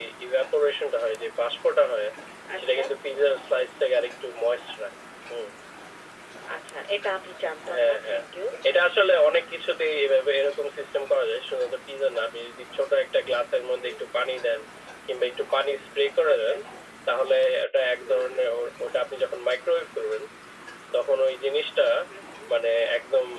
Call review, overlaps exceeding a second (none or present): none